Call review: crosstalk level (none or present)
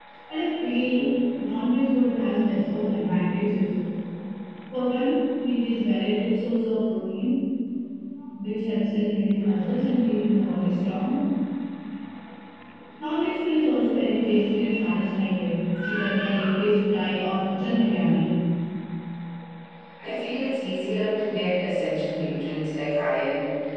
none